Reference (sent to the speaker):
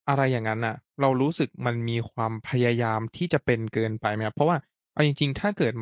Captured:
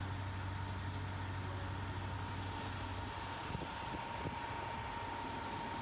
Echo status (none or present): none